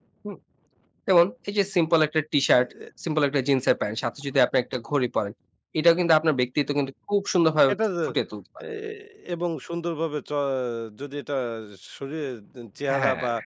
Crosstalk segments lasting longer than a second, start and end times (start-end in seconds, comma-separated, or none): none